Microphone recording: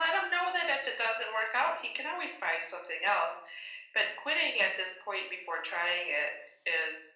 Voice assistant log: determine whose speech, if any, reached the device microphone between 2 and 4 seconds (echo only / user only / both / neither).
echo only